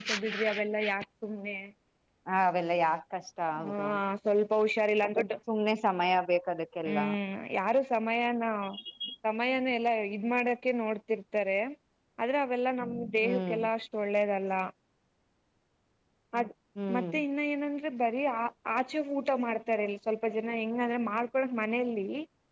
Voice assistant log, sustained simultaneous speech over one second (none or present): none